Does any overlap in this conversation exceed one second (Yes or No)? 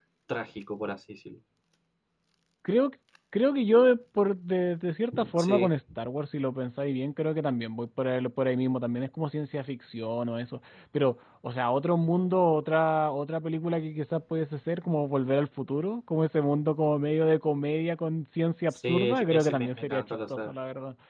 Yes